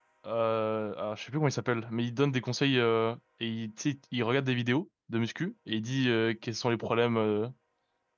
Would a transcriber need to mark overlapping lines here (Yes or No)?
No